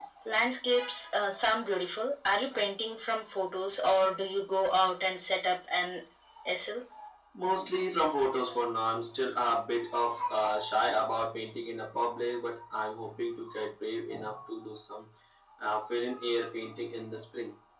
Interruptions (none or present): none